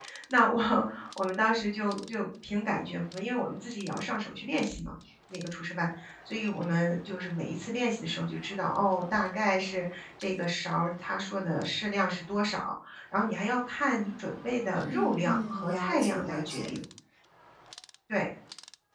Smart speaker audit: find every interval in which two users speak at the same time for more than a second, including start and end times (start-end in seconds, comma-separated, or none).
14.8-16.7